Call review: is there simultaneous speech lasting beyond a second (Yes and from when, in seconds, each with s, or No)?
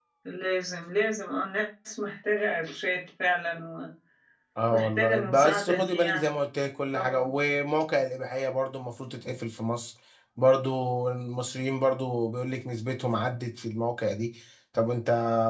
Yes, from 4.7 s